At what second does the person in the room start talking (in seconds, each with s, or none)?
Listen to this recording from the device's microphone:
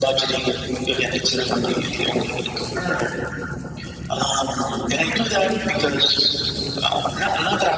none